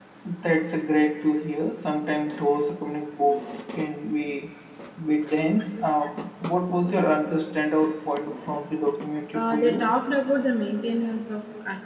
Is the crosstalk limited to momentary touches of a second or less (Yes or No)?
Yes